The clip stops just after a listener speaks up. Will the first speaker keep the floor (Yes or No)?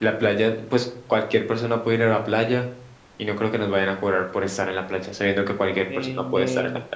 No